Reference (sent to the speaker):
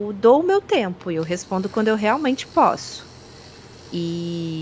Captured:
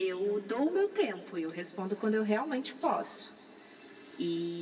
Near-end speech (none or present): none